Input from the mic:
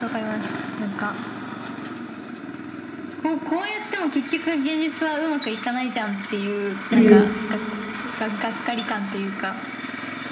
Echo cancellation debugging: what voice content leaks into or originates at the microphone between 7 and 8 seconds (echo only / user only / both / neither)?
both